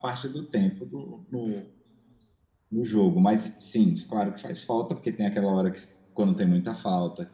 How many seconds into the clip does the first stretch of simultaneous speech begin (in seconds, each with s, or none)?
none